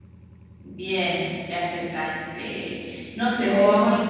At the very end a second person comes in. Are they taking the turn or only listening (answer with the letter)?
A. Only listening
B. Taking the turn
A